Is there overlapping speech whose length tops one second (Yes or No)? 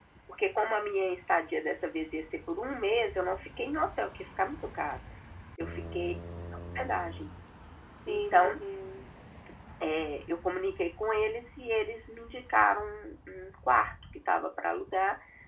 No